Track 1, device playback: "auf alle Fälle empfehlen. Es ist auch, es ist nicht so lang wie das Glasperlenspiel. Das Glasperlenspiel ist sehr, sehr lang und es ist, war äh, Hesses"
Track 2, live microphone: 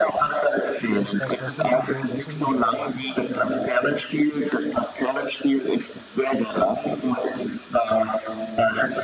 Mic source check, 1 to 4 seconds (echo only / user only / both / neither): both